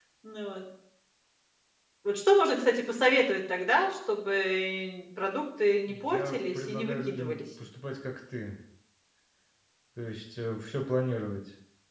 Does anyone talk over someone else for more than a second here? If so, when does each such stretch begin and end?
6.0-7.4

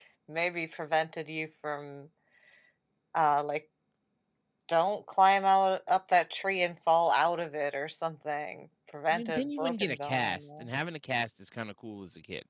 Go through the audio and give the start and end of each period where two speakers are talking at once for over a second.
9.1-10.7

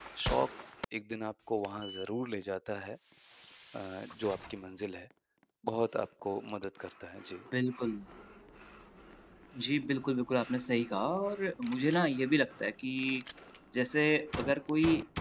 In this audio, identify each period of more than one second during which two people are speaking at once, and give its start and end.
none

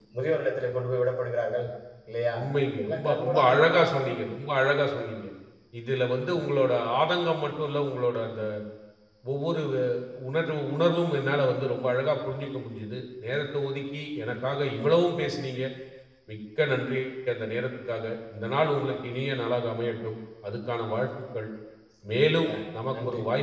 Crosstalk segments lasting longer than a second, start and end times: 2.9-4.1

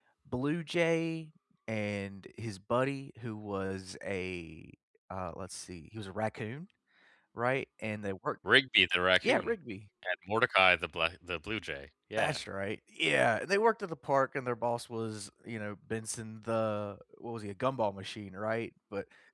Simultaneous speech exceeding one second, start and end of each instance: none

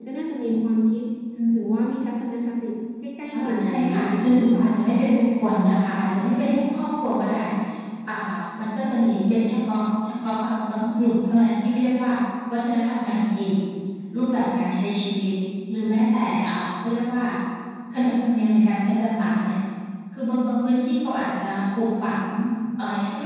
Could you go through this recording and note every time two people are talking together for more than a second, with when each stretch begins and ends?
3.3-4.9

